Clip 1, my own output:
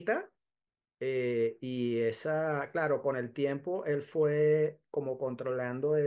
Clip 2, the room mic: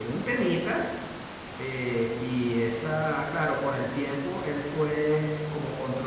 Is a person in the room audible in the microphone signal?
No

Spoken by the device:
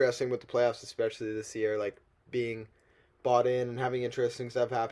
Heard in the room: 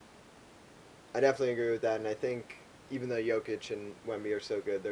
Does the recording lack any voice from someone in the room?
No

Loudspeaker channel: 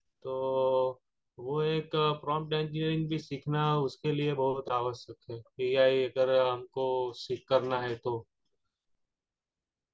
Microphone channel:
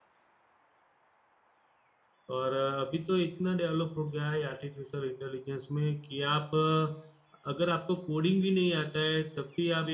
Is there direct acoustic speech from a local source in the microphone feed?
Yes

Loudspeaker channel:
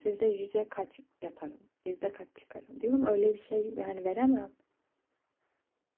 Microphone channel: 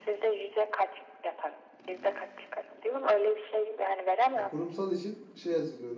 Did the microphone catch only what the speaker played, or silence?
No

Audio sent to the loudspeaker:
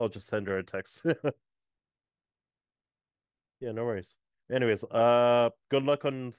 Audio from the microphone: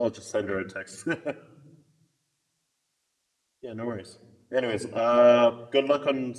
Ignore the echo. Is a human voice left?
No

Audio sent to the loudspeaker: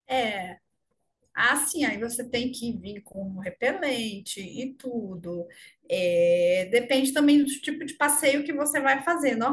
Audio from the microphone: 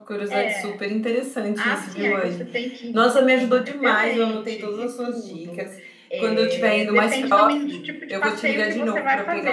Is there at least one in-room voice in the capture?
Yes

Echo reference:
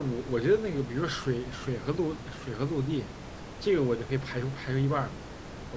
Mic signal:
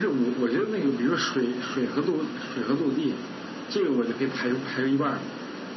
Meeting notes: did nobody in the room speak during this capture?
Yes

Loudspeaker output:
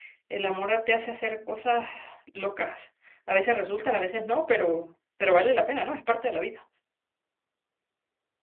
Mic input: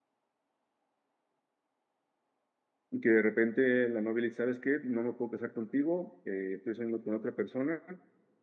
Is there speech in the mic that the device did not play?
Yes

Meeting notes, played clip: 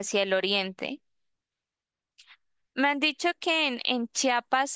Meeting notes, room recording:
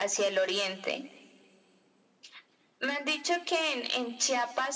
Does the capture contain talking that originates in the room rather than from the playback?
No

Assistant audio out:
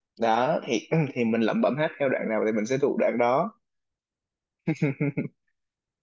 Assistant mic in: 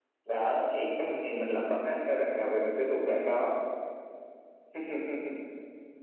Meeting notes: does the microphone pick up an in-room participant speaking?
No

